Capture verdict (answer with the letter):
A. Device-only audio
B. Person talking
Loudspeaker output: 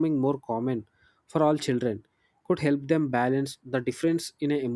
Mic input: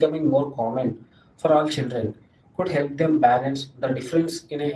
A